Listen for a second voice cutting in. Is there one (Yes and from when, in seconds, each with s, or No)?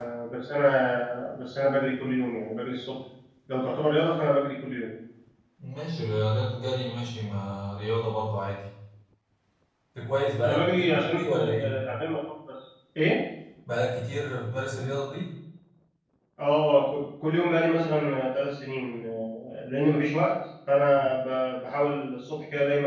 Yes, from 10.4 s